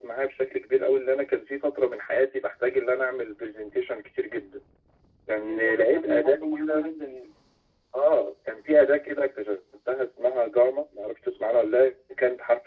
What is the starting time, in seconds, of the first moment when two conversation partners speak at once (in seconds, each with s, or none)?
5.4 s